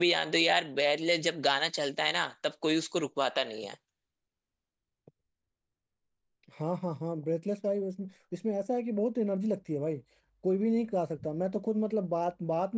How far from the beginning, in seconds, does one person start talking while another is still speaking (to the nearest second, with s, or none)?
none